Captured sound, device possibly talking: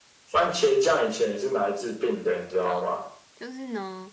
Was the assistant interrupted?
Yes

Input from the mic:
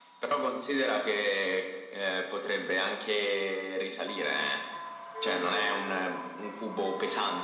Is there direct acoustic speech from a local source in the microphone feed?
No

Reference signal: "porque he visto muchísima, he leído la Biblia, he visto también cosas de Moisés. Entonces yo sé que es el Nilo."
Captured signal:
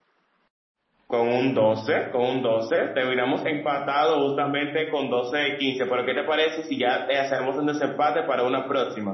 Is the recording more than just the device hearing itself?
Yes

